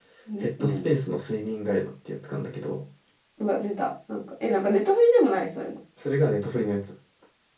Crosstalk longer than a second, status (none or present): none